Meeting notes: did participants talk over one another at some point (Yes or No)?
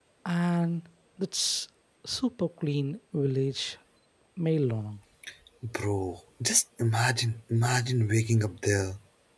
No